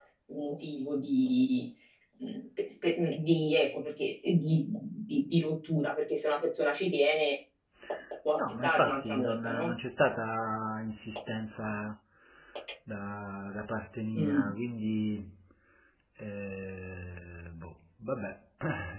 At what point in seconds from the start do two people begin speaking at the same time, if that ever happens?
8.4 s

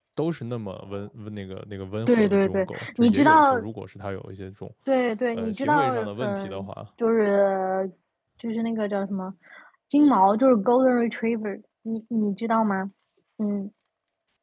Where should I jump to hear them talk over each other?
2.1 s

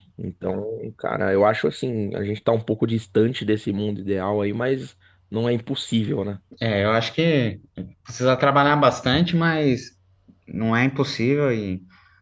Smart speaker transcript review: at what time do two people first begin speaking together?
none

